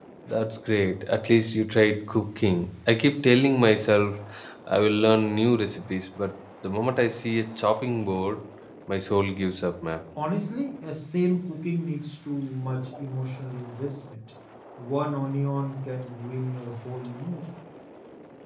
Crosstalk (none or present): none